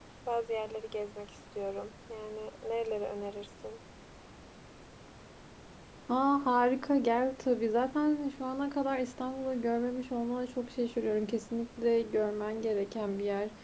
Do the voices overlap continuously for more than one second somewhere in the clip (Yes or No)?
No